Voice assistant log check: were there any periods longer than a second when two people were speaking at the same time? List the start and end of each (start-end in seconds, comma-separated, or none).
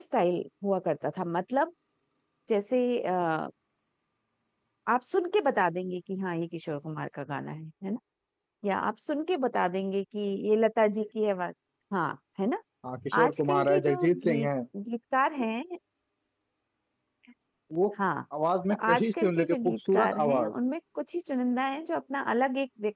13.2-14.5, 18.7-20.5